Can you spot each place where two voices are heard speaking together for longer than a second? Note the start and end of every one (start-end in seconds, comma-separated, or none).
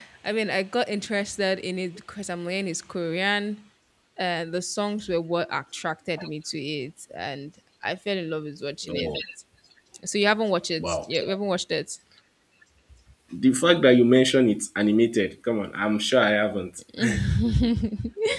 none